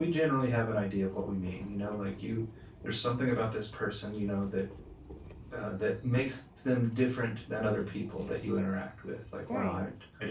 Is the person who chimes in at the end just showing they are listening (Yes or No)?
Yes